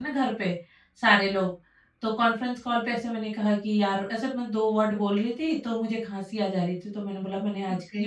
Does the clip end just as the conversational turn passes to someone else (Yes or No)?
No